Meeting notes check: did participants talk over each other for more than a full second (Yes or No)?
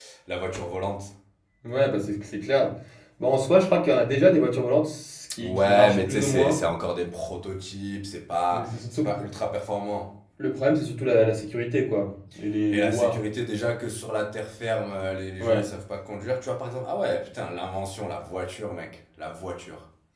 Yes